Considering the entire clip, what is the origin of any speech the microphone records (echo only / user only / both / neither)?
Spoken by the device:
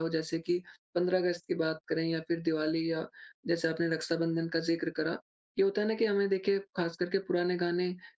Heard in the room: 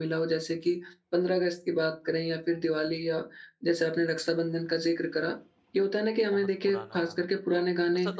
both